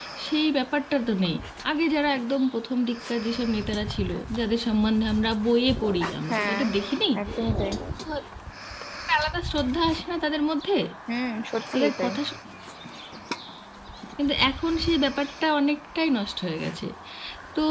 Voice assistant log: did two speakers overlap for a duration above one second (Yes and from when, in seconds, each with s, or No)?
No